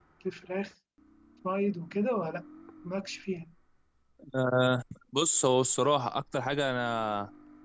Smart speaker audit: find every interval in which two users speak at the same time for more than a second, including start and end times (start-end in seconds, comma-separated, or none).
none